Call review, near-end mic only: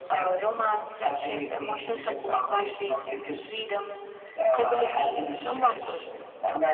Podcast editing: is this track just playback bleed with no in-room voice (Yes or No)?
Yes